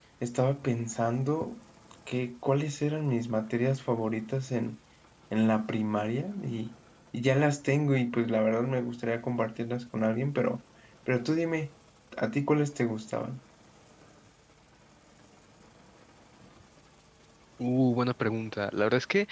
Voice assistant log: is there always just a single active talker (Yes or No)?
Yes